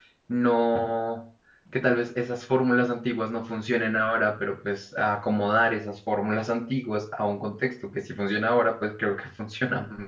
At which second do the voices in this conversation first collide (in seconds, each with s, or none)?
none